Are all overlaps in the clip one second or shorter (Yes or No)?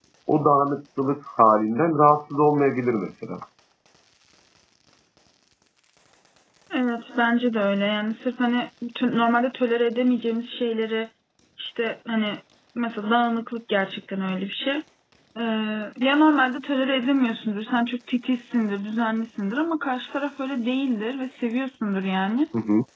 Yes